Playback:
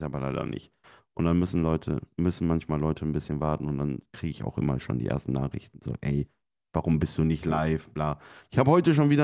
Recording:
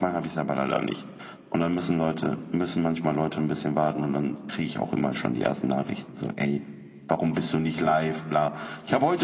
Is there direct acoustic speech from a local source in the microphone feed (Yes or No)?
No